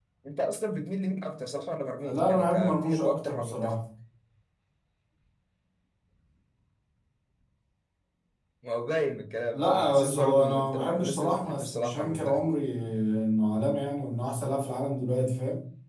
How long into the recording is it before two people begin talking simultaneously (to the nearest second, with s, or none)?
2 s